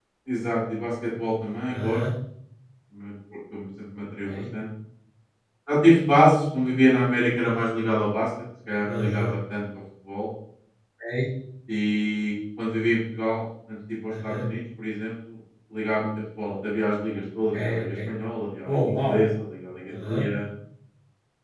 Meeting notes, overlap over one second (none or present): none